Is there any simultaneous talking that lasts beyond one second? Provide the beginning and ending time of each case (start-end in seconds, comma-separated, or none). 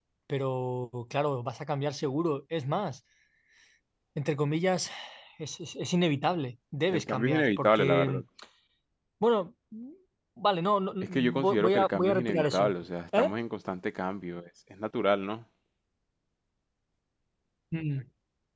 6.9-8.2, 11.0-12.6